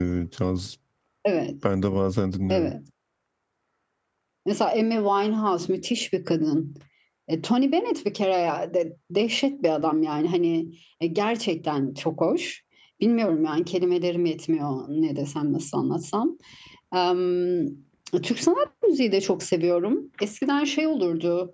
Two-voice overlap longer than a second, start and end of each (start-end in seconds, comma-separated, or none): none